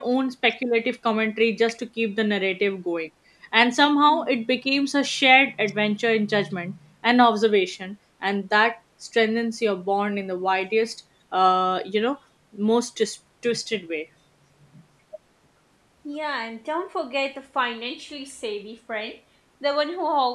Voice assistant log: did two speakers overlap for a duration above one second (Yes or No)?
No